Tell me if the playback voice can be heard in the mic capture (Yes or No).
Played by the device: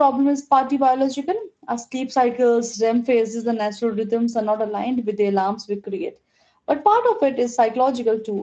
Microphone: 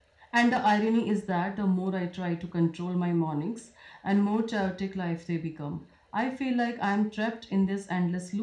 No